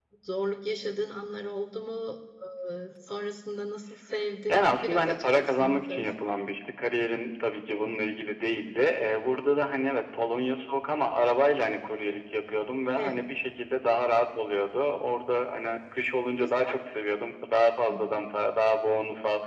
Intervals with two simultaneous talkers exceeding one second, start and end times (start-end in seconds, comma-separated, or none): 4.5-6.0